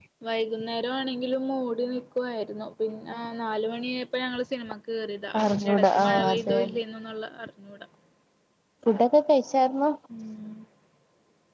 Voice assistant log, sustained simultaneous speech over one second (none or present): present